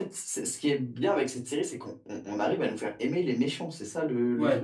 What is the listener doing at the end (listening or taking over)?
taking over